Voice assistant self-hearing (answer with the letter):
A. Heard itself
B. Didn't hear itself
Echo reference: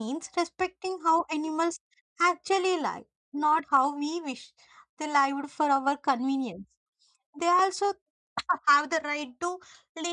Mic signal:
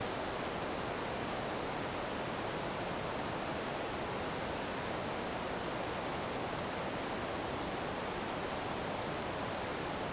B